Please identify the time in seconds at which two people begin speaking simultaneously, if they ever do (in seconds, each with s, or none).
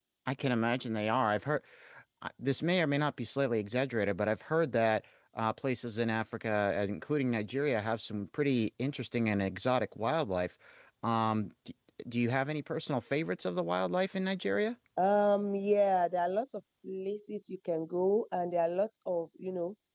none